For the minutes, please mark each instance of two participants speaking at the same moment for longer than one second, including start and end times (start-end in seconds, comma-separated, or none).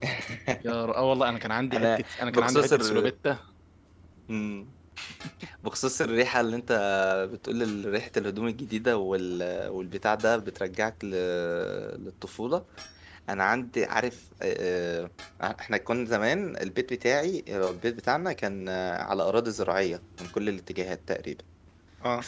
1.7-3.1